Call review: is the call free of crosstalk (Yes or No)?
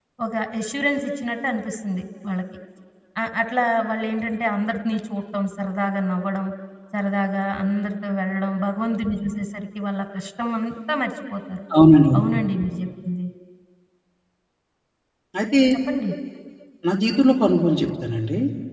Yes